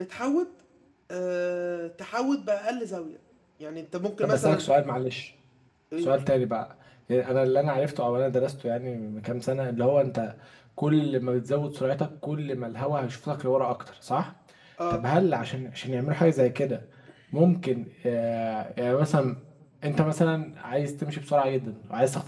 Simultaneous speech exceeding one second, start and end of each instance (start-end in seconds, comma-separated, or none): none